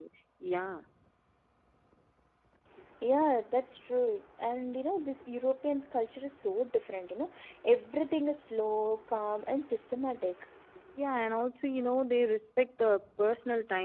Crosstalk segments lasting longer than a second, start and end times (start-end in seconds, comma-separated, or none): none